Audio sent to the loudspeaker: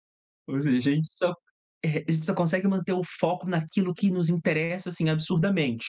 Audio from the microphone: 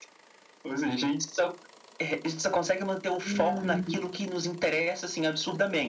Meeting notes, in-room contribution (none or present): present